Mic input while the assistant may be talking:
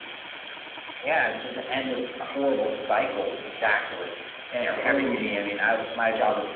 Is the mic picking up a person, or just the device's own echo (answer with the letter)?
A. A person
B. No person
A